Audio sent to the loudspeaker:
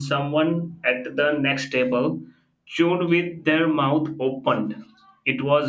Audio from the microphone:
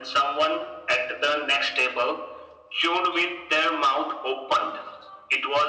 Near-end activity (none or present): none